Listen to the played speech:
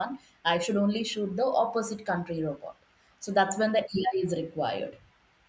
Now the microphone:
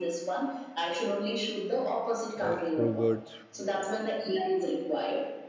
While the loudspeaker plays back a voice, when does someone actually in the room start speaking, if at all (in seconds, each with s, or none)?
2.4 s